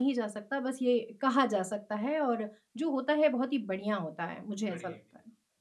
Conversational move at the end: taking over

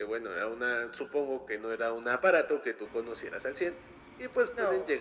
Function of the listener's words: listening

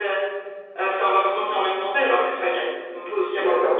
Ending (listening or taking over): taking over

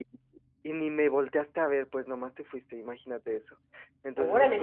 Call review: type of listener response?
taking over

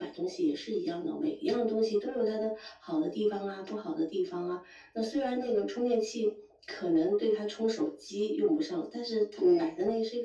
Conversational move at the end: listening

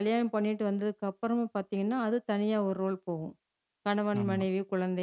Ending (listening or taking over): listening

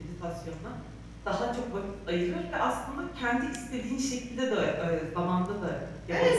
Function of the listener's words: taking over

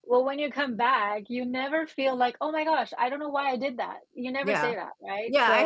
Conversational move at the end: taking over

